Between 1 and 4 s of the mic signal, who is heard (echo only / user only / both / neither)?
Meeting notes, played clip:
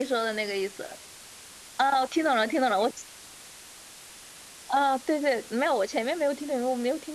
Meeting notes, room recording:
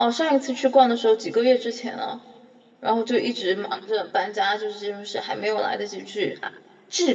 user only